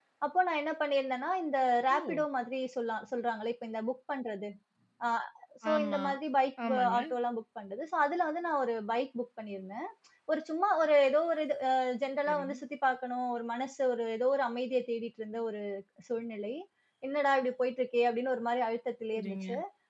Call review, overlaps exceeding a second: none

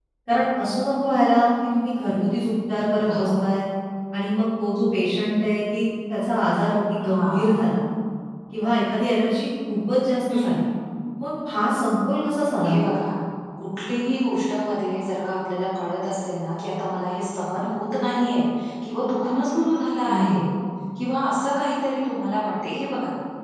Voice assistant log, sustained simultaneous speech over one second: none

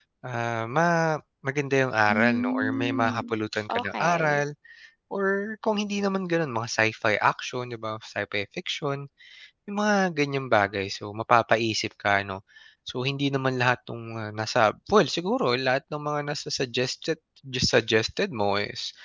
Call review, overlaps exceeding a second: present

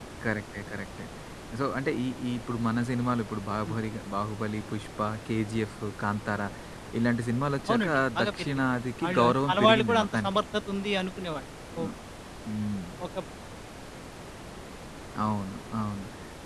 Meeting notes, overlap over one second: present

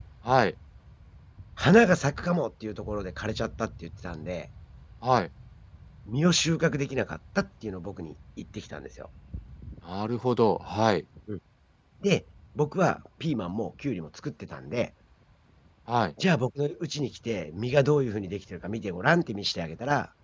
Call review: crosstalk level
none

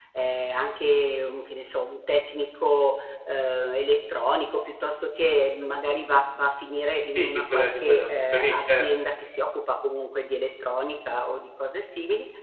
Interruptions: present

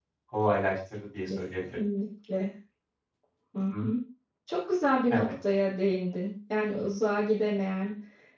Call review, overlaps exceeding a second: none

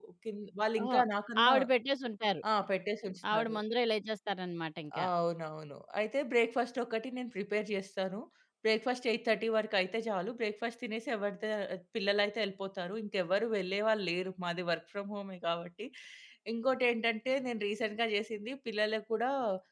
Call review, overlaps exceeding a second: none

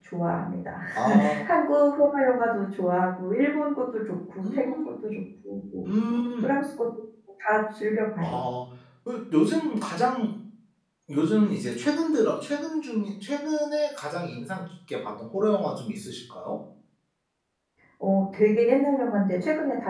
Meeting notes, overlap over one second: none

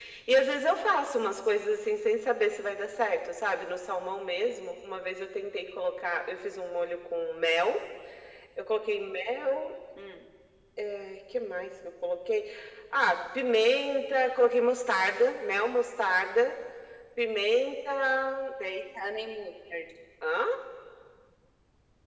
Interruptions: none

